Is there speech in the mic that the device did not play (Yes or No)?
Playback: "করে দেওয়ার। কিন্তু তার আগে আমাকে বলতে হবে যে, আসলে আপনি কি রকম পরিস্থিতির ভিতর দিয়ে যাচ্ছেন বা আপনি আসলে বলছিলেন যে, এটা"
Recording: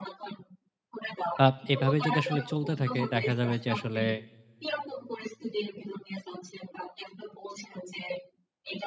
Yes